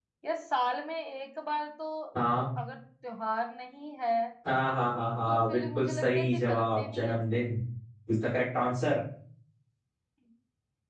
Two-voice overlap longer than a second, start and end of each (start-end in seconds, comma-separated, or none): 5.3-7.2